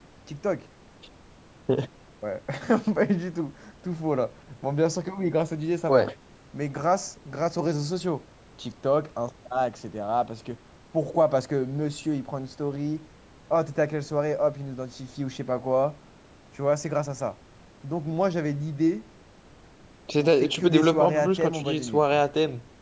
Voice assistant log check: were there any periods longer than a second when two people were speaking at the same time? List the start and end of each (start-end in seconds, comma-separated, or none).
20.2-22.2